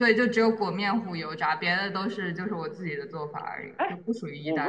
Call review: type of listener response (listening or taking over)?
taking over